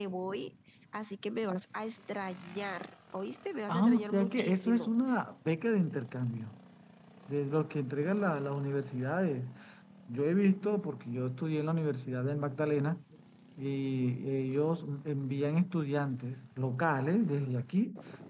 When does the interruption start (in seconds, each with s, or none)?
3.7 s